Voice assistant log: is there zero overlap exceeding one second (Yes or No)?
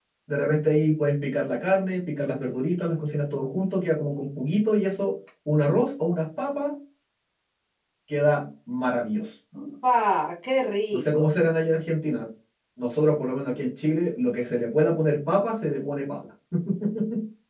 Yes